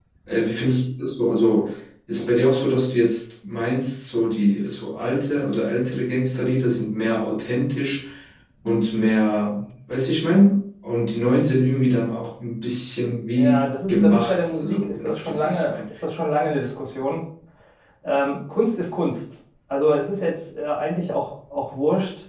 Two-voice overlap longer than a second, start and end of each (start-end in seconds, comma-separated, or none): 13.3-15.8